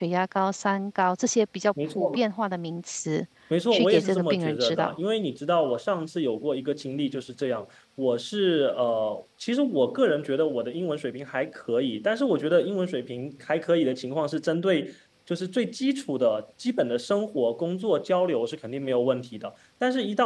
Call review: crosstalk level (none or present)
present